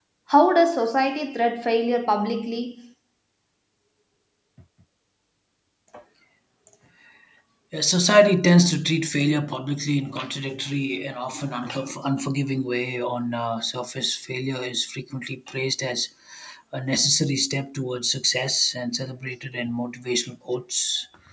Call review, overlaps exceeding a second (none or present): none